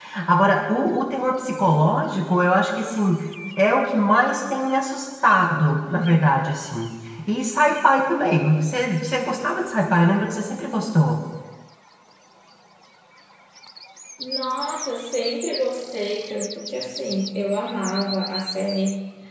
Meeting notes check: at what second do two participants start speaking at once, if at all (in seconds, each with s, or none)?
none